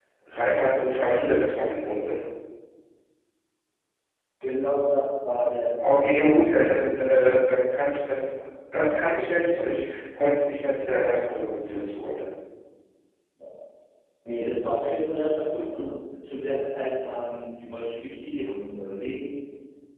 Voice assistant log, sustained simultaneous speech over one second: none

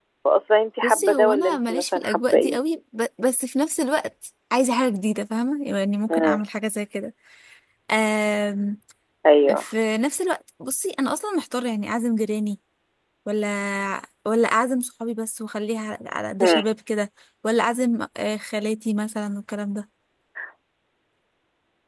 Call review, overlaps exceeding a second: present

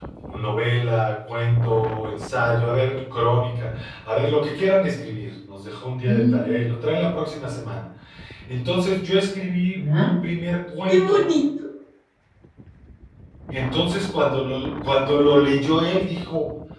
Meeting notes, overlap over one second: none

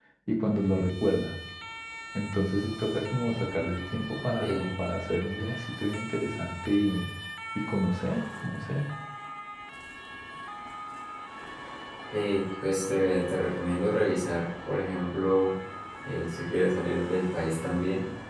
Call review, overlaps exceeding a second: none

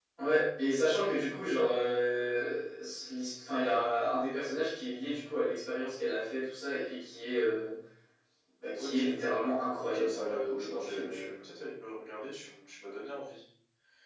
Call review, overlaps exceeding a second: present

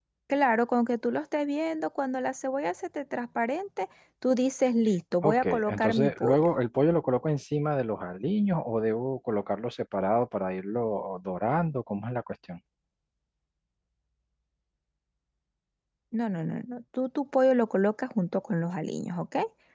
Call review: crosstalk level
present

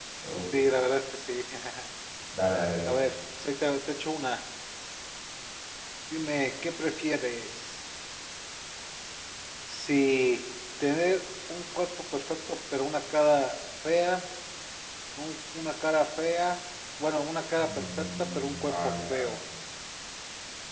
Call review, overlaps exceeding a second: present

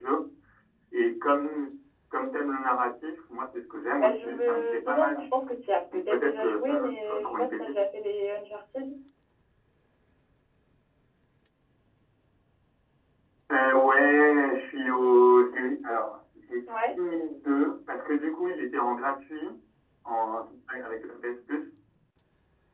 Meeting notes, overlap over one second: present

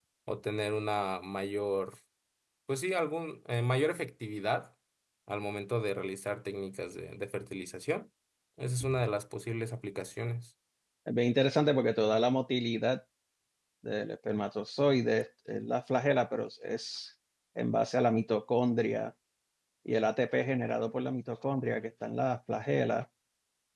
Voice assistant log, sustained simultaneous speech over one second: none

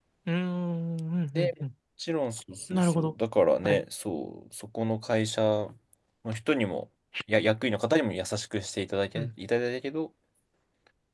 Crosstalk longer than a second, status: none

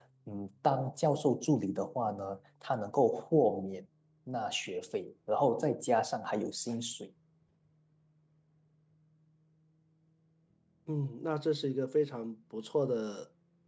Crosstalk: none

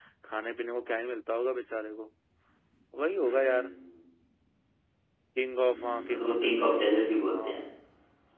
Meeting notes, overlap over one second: present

